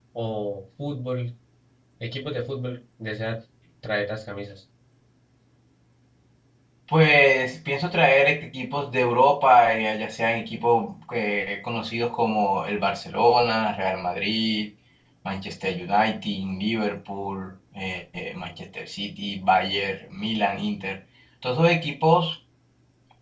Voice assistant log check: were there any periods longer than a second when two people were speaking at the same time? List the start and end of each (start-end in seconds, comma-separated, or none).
none